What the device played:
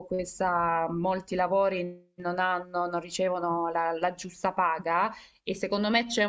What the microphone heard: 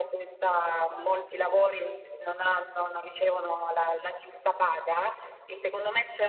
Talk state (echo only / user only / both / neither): both